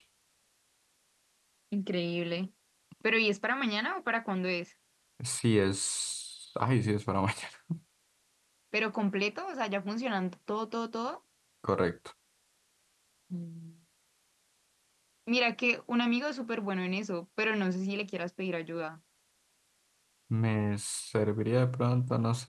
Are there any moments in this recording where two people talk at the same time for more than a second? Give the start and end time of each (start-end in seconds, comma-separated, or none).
none